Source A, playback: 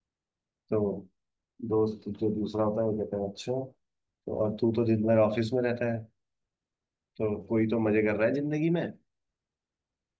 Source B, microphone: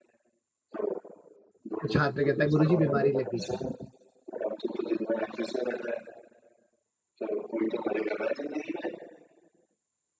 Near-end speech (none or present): present